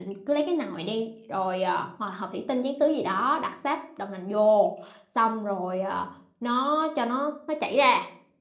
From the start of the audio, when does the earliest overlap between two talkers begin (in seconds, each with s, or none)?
none